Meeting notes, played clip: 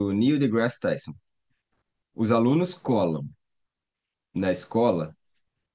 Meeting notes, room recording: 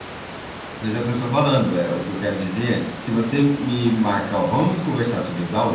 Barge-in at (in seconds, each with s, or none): 0.8 s